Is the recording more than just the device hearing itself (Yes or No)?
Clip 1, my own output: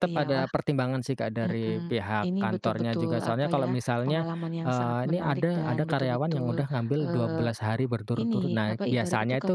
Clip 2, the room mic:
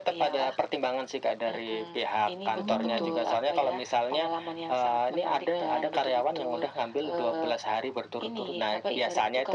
Yes